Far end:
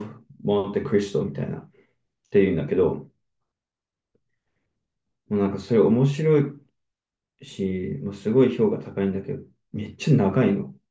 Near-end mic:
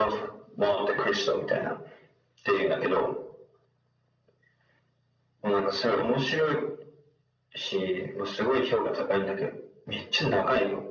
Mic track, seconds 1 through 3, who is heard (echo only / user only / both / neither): echo only